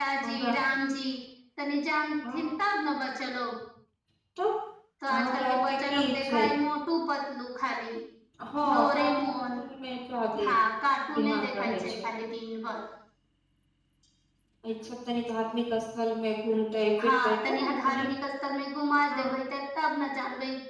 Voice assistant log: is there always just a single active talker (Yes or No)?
No